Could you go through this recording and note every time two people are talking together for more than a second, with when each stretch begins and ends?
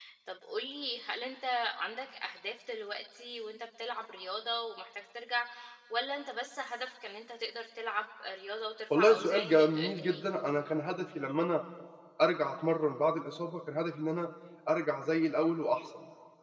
8.9-10.2

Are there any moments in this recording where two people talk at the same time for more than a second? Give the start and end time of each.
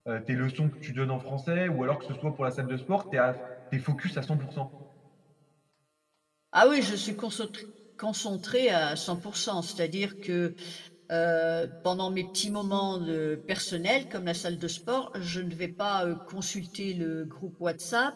none

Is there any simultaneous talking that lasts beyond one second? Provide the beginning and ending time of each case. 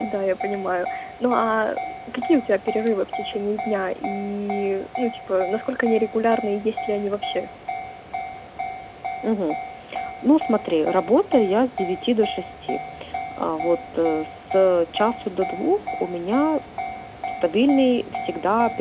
none

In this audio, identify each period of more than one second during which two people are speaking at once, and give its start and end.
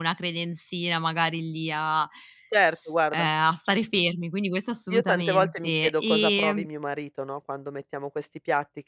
4.9-6.7

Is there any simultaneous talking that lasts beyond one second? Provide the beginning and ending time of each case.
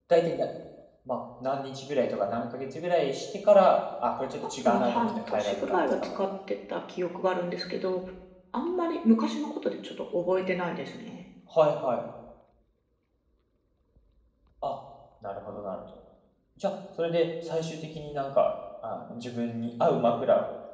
4.6-6.2

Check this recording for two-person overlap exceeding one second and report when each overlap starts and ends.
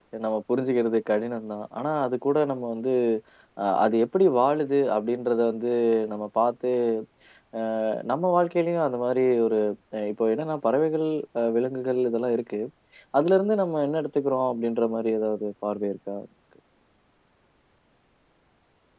none

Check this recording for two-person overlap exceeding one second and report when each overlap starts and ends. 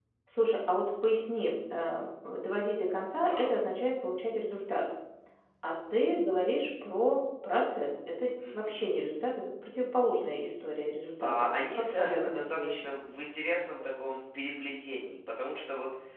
11.2-12.9

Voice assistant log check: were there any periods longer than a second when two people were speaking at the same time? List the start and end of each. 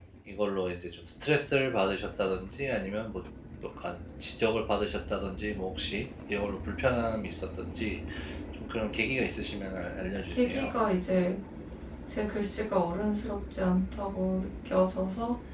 none

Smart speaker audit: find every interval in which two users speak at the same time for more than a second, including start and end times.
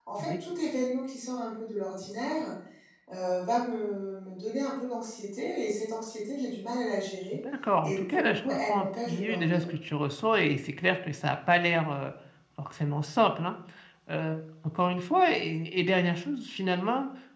7.8-9.7

